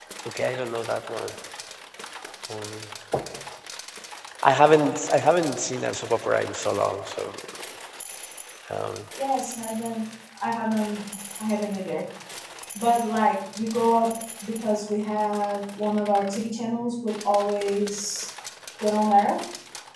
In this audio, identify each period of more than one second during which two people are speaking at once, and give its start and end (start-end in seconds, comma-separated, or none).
none